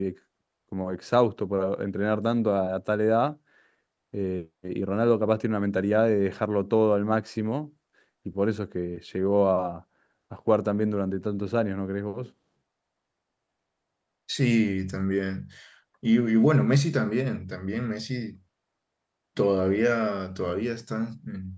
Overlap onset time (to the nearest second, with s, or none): none